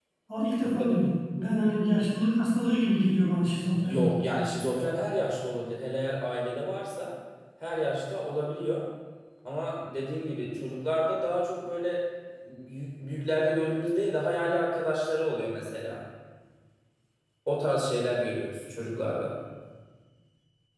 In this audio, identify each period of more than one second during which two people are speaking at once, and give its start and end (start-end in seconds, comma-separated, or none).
none